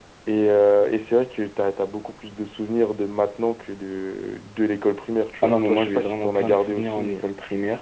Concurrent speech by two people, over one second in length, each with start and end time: 5.4-7.2

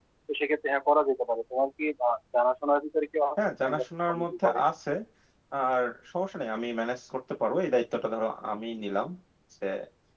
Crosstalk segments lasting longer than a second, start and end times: 3.4-4.6

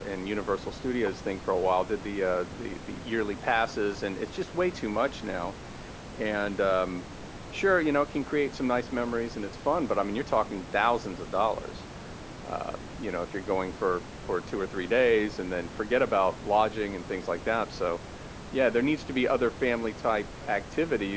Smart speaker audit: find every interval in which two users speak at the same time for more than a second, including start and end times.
none

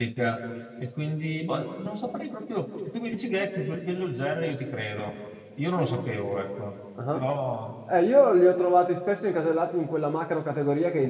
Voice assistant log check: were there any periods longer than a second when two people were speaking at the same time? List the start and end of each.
none

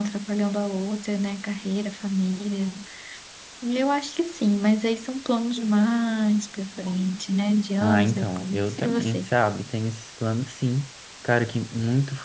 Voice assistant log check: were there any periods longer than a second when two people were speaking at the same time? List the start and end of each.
7.8-9.3

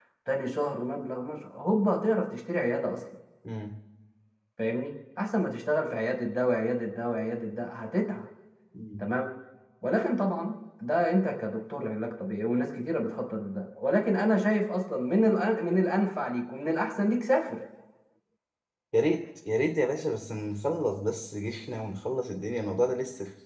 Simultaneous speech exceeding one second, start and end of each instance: none

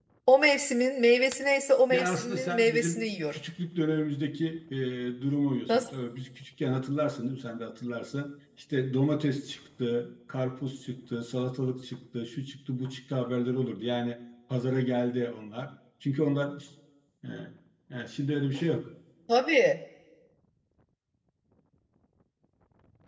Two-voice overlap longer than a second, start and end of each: 1.9-3.4

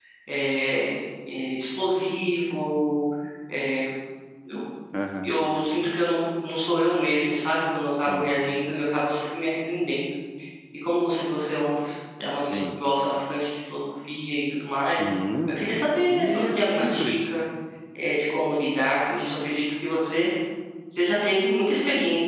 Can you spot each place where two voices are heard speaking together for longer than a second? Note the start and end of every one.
16.1-17.3

